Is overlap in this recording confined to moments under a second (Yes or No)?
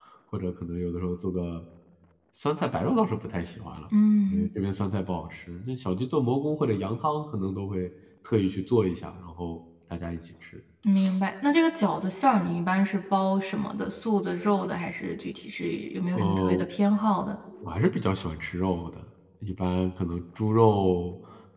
Yes